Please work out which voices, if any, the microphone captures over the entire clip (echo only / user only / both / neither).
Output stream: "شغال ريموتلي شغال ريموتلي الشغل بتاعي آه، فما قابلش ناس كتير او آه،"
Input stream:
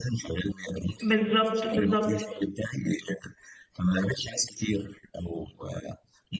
both